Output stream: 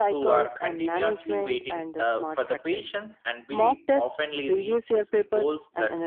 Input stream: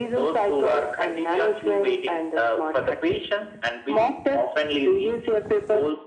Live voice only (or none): none